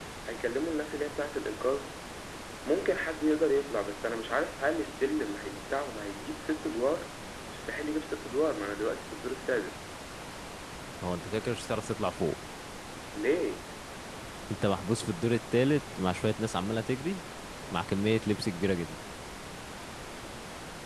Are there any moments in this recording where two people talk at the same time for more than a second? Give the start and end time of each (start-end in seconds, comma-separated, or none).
none